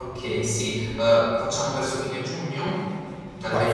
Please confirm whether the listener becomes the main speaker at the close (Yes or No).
Yes